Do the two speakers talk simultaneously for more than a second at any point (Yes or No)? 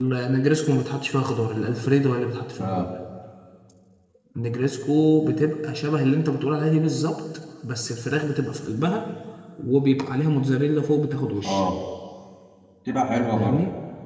No